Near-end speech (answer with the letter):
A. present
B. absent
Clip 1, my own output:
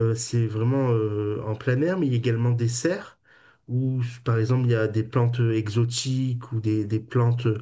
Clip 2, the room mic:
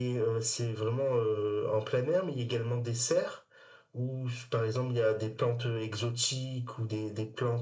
B